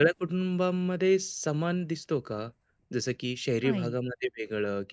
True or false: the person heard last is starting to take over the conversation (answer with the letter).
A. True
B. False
B